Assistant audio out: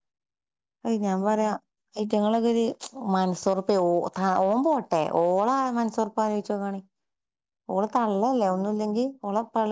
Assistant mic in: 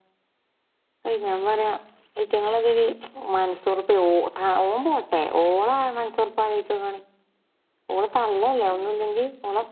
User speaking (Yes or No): No